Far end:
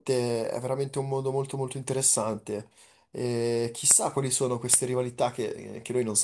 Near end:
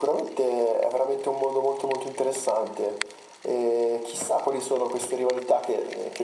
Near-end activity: none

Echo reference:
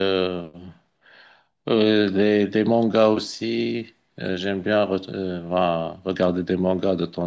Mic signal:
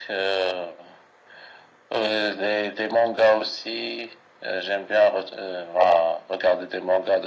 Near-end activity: none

